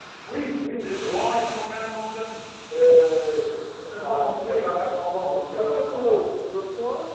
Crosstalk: present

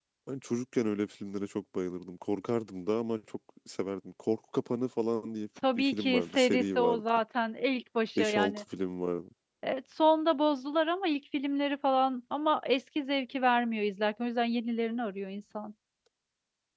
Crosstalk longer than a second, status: present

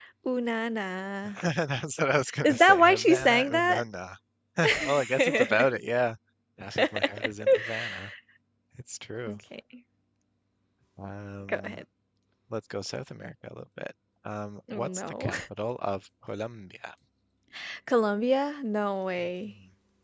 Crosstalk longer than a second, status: present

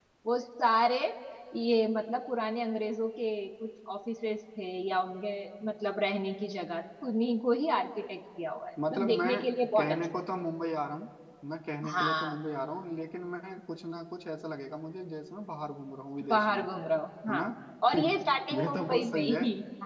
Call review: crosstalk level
present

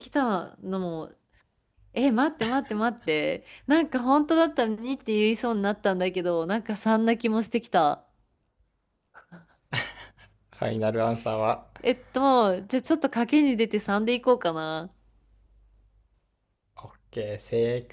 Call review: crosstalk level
none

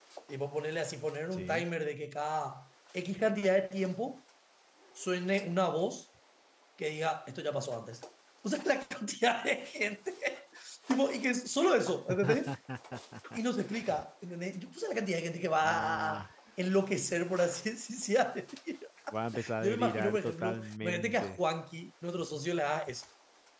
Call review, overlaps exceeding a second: present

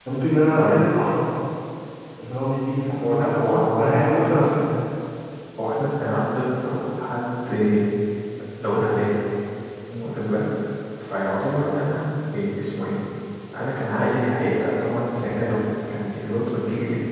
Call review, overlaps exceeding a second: present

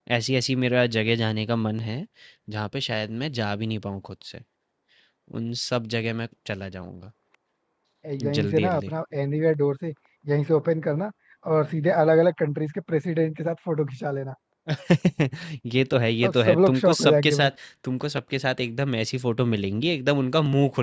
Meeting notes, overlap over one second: present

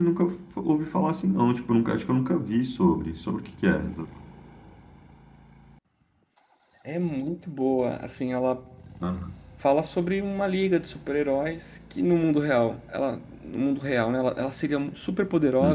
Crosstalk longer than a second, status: none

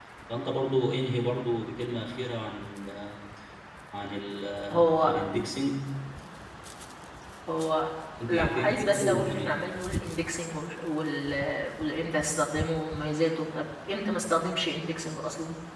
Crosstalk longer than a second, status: present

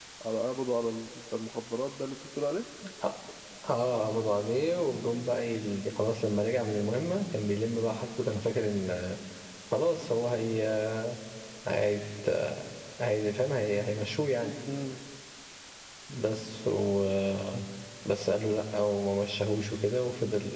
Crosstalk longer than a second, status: none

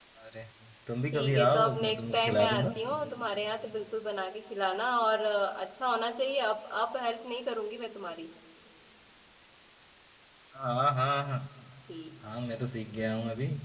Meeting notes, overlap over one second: present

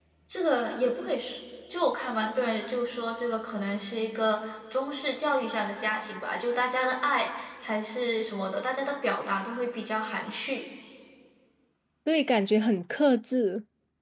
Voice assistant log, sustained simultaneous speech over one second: none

